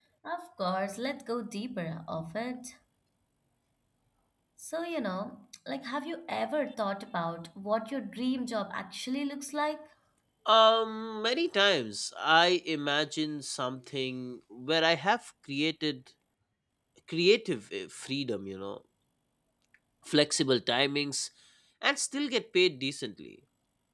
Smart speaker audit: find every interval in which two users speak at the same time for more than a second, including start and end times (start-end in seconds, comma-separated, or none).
none